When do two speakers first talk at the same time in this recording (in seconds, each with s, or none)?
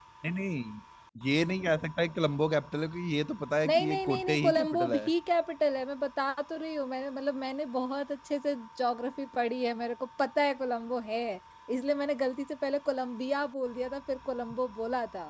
3.6 s